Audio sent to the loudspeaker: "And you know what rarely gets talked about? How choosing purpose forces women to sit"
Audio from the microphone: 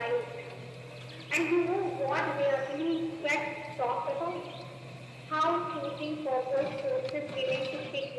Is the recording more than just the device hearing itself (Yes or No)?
No